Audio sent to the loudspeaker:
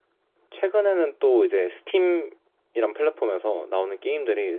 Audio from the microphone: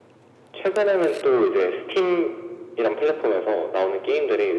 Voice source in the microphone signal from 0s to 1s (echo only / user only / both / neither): echo only